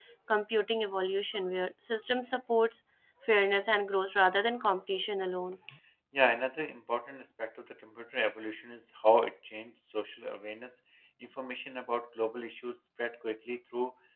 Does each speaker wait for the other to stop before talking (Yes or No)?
Yes